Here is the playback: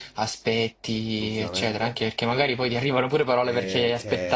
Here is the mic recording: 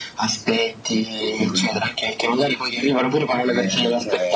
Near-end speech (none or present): none